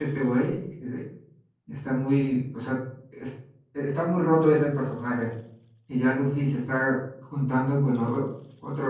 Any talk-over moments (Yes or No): No